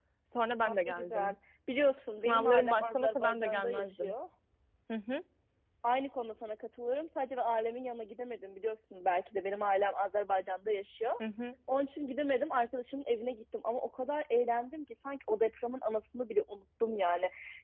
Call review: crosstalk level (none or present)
present